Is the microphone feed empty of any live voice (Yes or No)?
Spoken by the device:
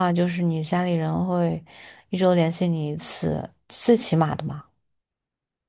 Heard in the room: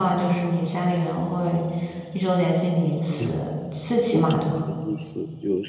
No